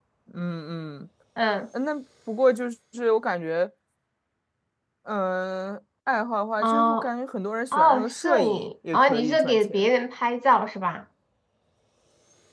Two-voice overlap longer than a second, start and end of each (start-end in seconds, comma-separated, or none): 7.7-9.9